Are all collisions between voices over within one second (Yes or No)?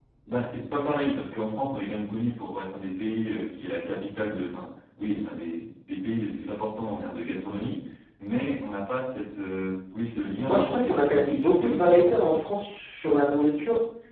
No